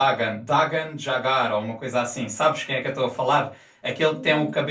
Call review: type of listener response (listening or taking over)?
listening